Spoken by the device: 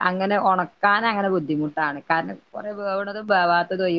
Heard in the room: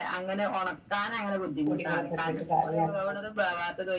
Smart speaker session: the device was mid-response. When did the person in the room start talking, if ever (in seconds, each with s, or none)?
1.7 s